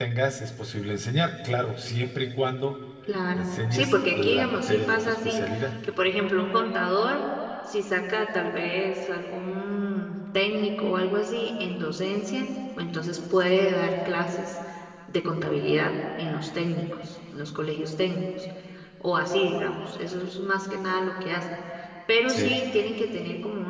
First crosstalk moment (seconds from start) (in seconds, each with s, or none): 3.3 s